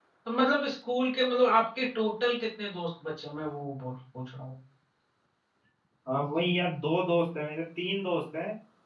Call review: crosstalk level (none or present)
none